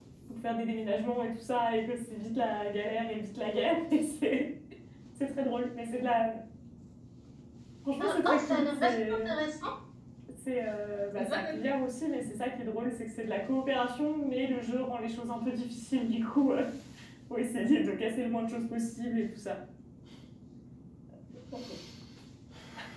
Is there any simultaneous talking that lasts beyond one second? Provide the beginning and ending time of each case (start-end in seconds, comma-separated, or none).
8.0-9.3